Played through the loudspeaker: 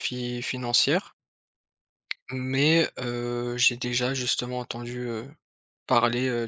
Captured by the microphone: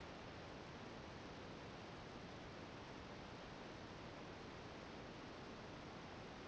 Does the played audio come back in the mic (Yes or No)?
No